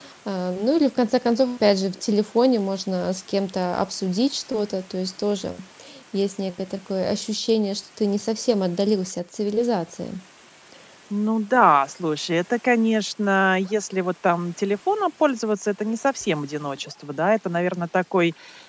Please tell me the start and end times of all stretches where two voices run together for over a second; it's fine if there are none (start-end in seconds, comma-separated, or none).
none